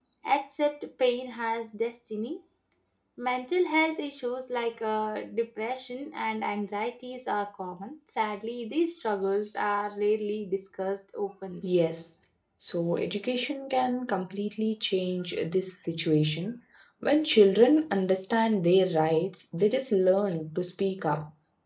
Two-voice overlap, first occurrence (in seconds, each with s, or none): none